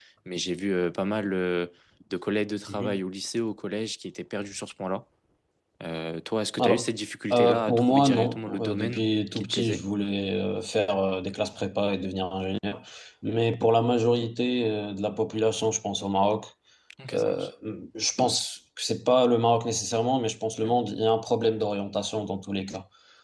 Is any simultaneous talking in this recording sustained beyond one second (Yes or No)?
Yes